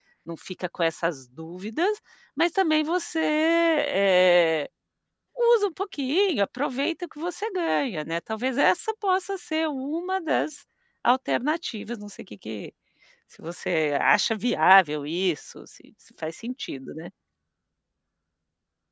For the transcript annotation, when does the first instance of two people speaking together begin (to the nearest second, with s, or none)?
none